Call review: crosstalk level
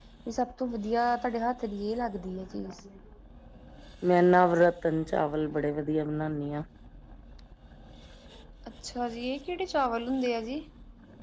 none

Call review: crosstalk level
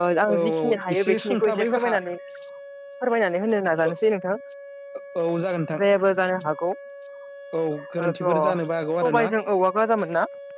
present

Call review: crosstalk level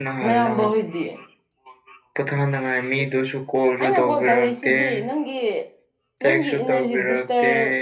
present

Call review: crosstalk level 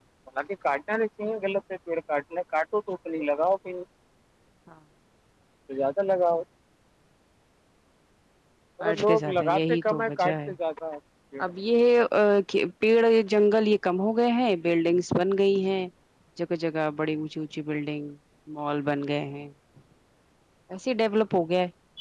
present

